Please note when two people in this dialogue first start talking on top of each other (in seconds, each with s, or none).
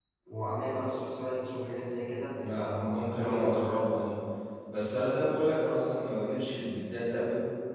2.4 s